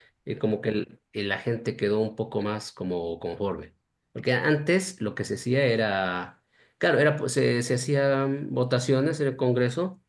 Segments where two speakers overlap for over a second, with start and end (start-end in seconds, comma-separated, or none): none